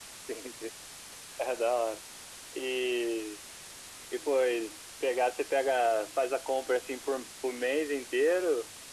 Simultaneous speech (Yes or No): No